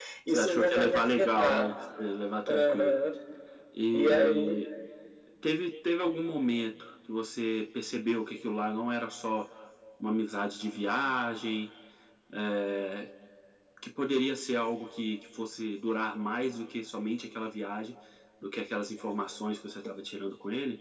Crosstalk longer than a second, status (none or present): present